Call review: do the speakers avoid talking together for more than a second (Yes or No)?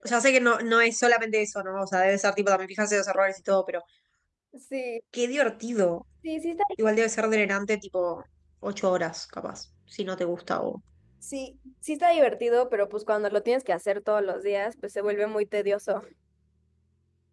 Yes